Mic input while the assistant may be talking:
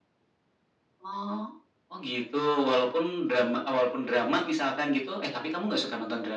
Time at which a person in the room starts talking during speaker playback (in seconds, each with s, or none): none